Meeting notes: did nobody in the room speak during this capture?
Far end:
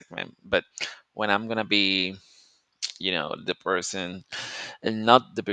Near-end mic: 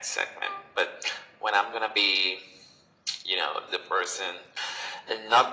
Yes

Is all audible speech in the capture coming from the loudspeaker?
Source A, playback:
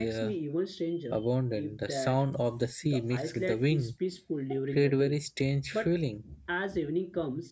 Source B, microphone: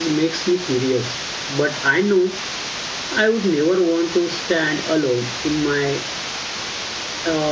No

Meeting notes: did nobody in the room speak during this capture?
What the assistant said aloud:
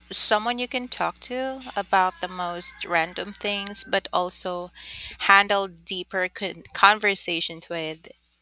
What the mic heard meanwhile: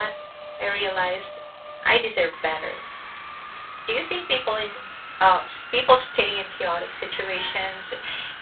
No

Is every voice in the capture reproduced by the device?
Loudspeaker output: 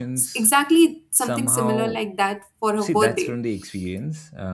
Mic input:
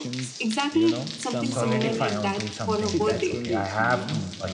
No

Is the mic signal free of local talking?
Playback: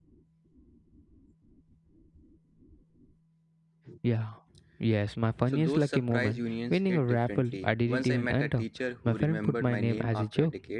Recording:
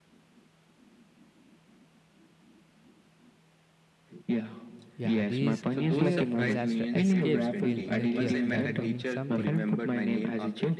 No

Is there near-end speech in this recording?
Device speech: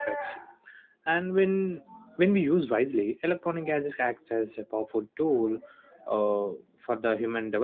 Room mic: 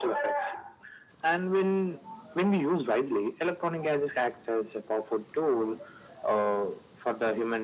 No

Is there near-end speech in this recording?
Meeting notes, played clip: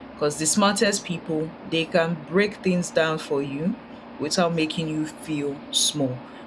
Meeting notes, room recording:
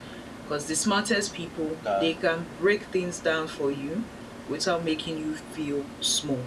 Yes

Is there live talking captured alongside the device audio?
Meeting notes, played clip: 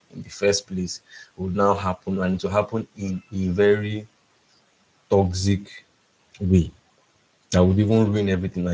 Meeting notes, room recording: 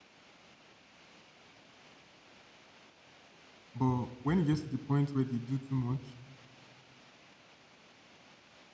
Yes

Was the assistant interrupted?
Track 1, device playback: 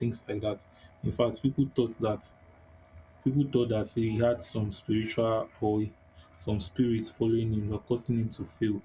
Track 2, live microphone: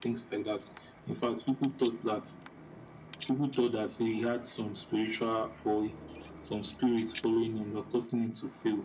No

